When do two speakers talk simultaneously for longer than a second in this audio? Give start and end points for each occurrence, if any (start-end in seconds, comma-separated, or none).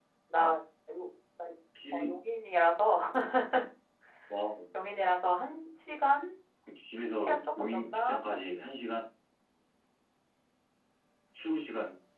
7.1-8.6